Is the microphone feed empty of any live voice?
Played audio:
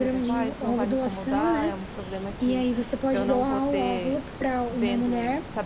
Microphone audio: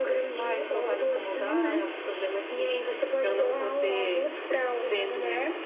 Yes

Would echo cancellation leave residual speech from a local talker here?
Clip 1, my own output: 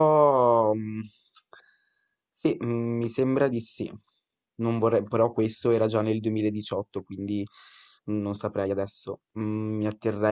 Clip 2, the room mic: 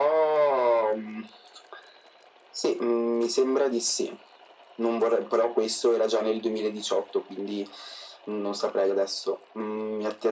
No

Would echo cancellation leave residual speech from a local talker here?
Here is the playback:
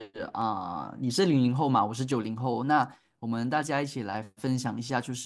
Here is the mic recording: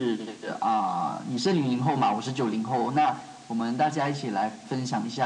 No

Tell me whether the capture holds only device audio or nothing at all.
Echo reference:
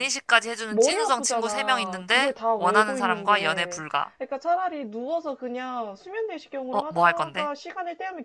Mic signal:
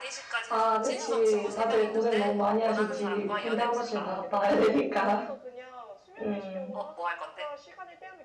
No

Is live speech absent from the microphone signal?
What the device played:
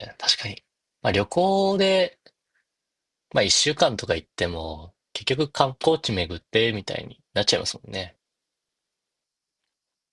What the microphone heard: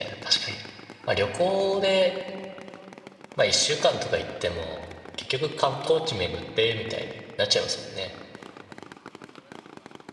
Yes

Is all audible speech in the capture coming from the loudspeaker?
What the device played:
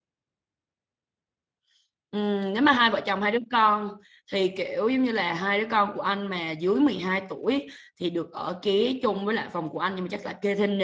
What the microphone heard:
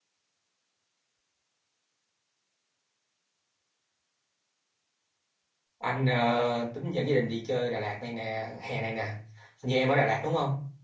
No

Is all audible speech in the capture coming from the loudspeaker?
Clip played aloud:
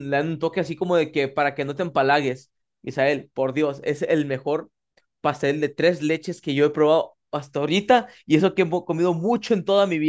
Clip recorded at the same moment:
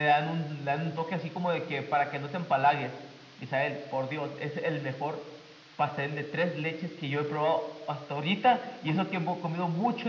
Yes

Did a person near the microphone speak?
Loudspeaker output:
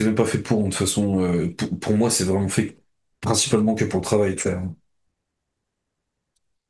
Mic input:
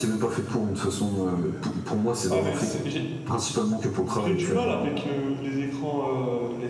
Yes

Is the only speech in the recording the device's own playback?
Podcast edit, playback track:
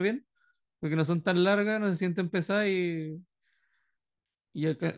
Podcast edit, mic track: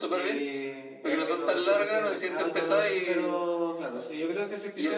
No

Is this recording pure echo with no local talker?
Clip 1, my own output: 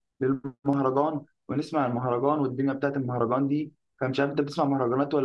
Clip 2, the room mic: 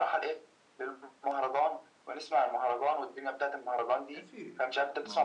No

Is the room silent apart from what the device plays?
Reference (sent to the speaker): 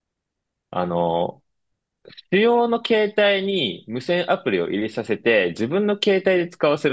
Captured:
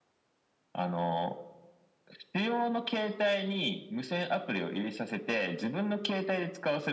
Yes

